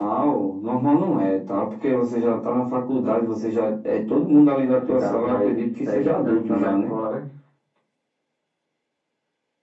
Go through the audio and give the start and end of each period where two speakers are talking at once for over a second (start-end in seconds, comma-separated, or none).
4.7-6.9